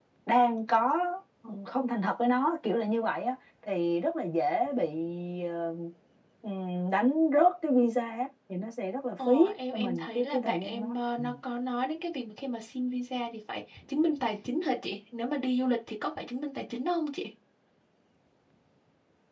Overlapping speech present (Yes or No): Yes